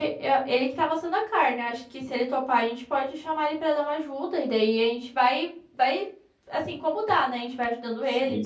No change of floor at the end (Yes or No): No